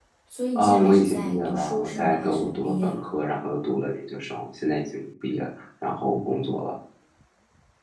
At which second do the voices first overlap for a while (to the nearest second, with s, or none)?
1 s